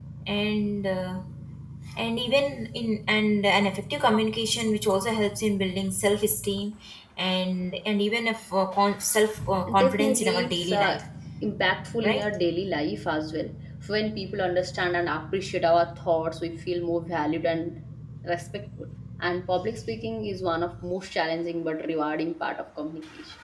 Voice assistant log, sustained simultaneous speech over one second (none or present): present